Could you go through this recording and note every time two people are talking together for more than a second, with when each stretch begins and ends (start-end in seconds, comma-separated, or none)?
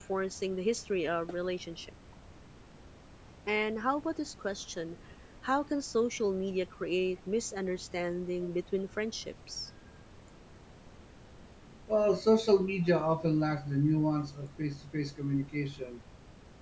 none